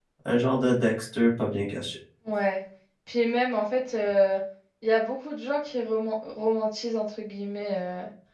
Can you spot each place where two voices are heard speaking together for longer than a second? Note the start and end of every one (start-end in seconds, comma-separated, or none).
none